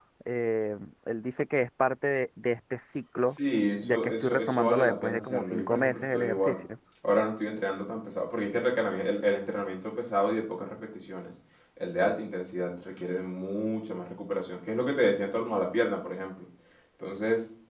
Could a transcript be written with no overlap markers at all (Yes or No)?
No